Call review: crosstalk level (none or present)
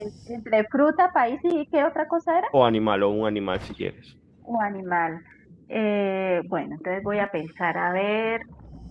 none